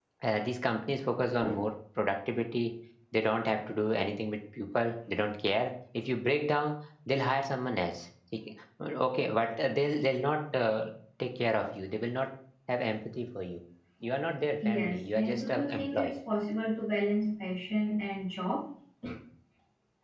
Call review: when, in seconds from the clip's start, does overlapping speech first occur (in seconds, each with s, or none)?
14.6 s